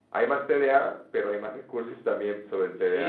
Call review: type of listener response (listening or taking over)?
taking over